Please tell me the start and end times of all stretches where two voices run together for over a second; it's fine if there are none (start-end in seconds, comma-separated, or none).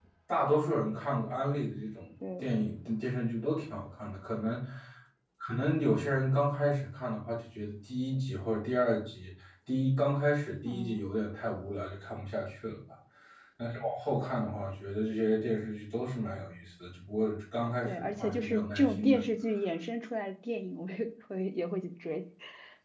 17.8-19.2